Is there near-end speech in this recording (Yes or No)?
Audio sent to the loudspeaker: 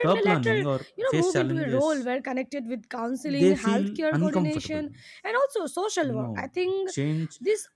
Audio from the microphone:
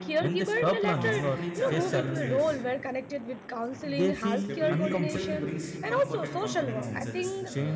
Yes